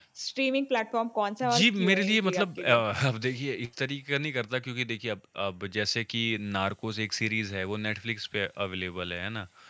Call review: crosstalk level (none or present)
present